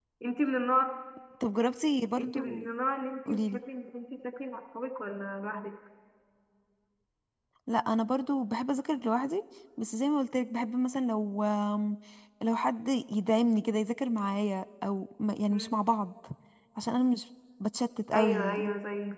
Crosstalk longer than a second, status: none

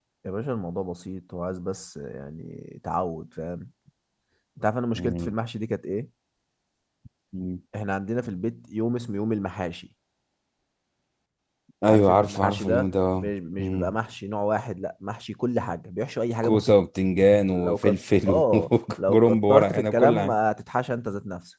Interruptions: present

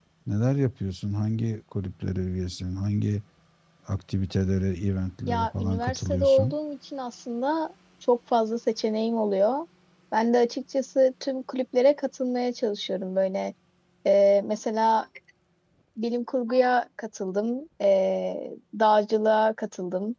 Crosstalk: present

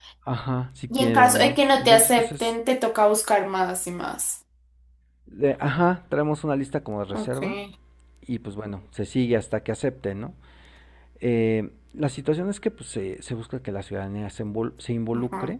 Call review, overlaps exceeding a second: present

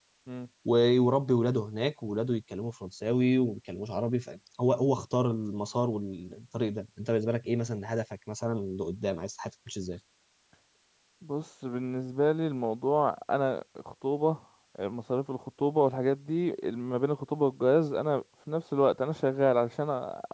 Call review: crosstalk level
none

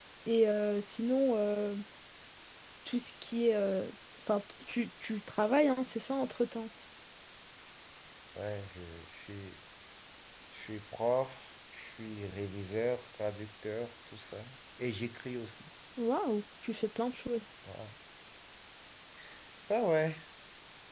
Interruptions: none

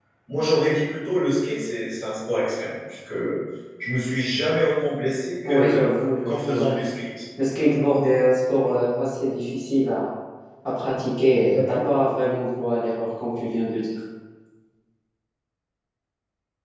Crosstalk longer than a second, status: present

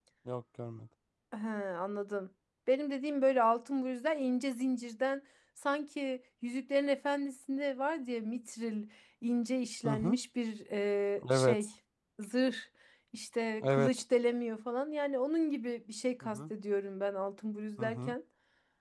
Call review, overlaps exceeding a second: none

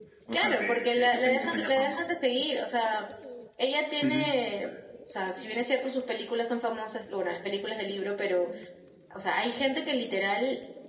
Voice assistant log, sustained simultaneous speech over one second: present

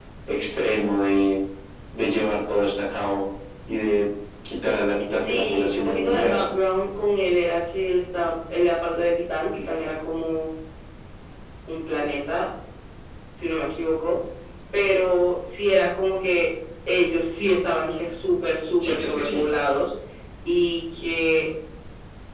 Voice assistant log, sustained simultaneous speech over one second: present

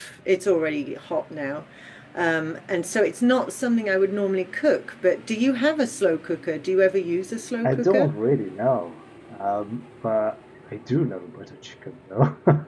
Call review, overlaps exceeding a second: none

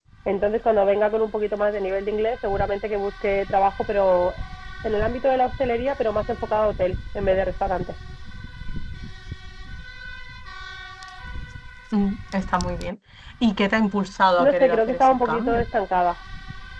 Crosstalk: present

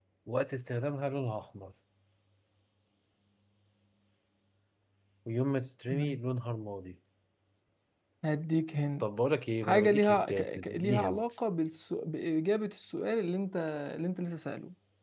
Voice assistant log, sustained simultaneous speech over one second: present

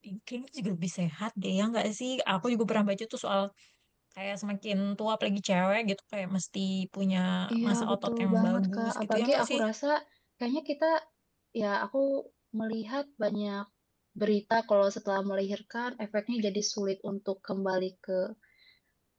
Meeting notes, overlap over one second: present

